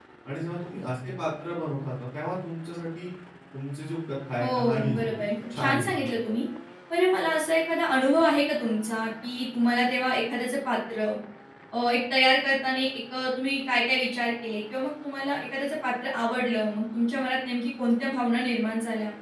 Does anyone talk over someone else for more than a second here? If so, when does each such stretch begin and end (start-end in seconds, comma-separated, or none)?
4.4-5.9